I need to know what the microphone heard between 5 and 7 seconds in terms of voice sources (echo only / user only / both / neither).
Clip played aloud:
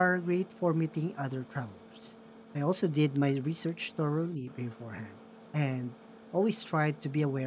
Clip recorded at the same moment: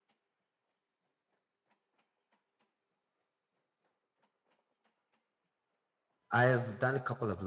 user only